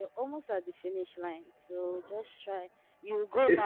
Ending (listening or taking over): listening